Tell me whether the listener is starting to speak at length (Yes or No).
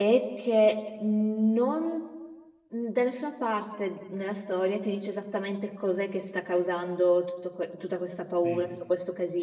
No